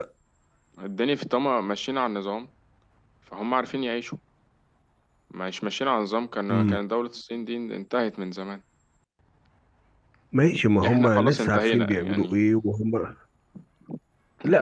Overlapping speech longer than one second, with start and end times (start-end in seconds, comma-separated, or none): 10.9-12.3